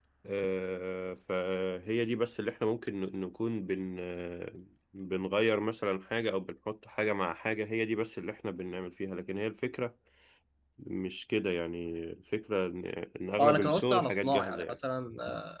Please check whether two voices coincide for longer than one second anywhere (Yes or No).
Yes